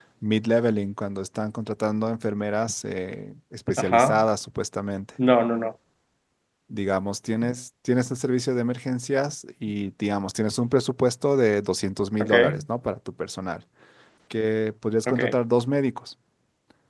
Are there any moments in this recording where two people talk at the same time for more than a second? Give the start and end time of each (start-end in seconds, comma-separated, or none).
none